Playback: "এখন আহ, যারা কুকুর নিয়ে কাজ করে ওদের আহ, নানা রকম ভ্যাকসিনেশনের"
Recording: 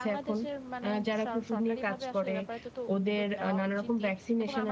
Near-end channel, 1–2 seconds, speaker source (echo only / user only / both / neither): both